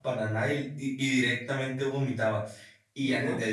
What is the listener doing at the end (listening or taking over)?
listening